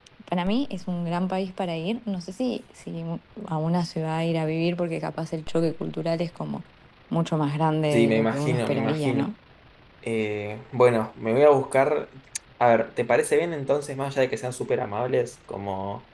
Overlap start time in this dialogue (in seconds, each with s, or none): 7.9 s